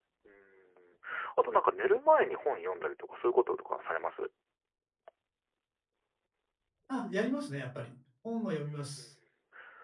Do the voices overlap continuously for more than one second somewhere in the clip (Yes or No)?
No